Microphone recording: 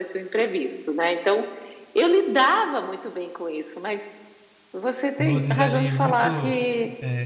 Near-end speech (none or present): present